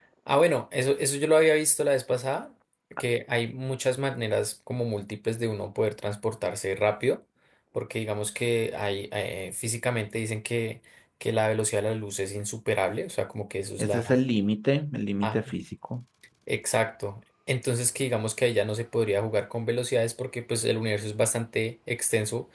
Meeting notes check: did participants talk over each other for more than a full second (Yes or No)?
No